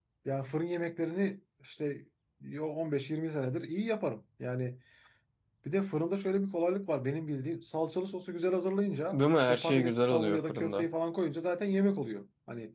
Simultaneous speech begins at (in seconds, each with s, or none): 9.1 s